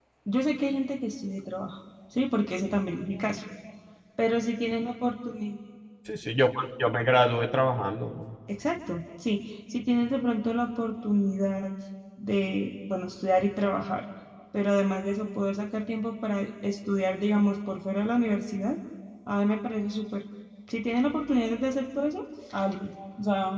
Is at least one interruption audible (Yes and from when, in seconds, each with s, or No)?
No